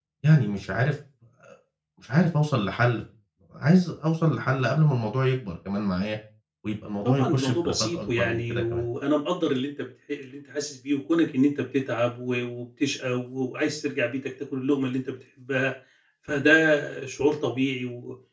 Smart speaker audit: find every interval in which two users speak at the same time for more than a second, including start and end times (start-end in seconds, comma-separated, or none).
7.0-8.8